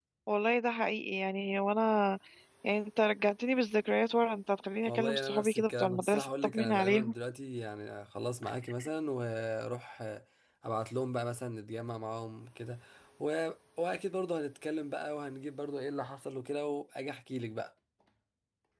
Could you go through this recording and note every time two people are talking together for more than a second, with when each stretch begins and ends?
4.8-7.1

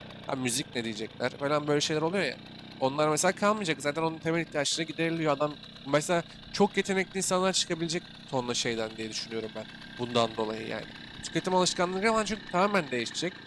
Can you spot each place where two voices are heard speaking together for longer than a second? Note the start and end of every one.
none

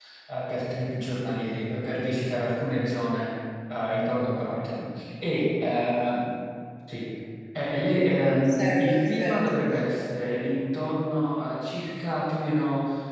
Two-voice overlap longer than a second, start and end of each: 8.4-10.0

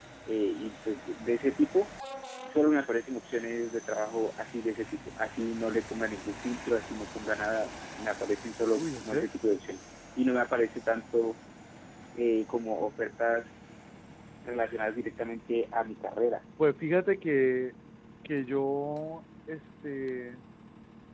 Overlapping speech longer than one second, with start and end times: none

